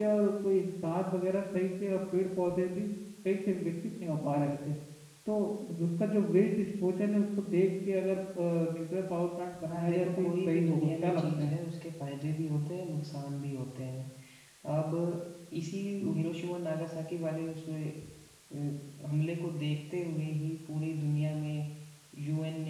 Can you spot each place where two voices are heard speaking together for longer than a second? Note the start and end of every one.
9.7-11.5

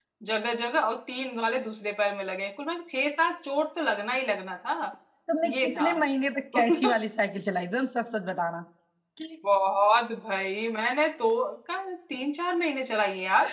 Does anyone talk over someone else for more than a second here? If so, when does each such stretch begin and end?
none

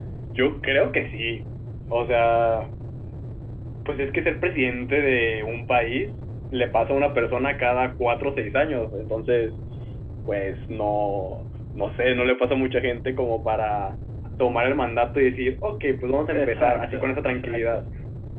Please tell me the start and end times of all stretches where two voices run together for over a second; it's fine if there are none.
16.3-17.8

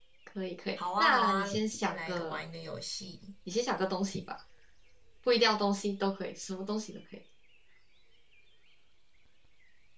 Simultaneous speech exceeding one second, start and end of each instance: 1.0-2.4

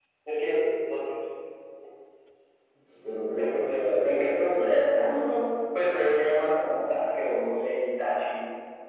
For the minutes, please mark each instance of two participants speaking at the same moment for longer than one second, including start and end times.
3.3-4.7

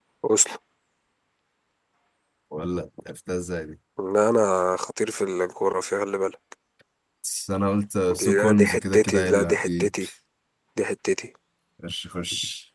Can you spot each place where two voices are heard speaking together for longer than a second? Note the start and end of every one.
8.2-9.9

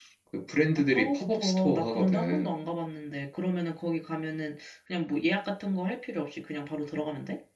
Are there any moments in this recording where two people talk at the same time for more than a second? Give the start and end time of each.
0.8-2.6

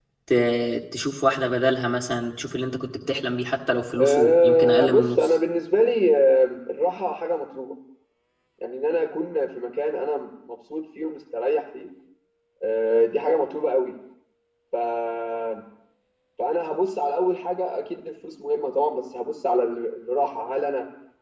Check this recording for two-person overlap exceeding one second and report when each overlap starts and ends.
4.0-5.3

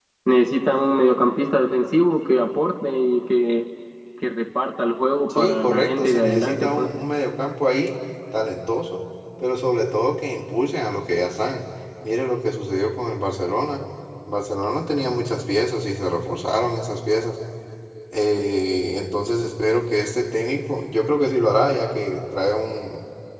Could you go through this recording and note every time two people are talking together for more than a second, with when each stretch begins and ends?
5.3-6.9

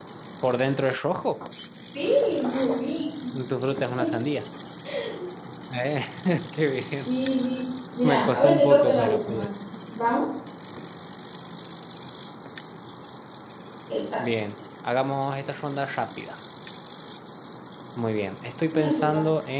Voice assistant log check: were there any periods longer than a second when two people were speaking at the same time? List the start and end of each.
8.0-9.5

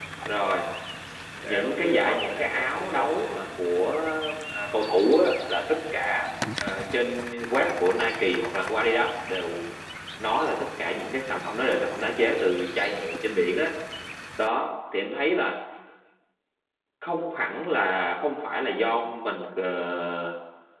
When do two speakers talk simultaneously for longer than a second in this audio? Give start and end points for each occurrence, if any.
1.4-3.2

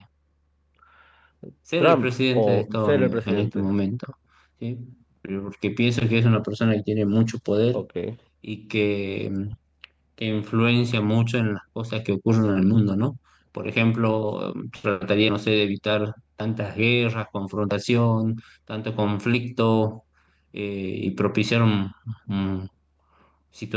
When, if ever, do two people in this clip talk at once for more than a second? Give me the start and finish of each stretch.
1.8-3.7

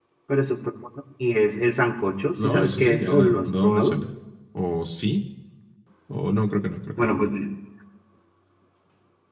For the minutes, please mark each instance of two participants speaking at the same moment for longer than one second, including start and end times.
2.4-4.0

